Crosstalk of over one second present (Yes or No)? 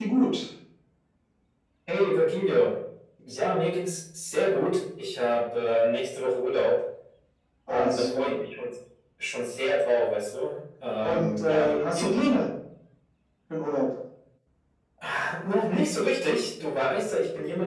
Yes